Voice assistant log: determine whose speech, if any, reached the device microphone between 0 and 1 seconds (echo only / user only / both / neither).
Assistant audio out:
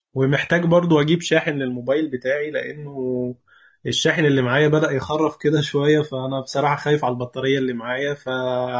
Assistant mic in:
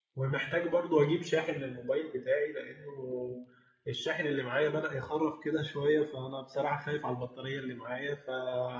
echo only